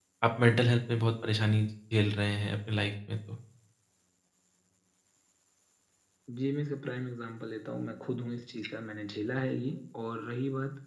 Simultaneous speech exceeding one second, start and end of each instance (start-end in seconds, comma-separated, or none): none